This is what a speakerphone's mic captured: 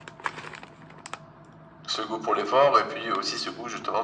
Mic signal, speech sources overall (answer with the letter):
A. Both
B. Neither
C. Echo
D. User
C